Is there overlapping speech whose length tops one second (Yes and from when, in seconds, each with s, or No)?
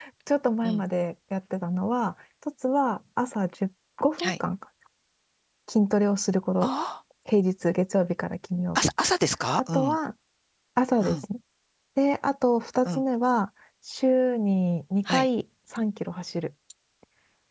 No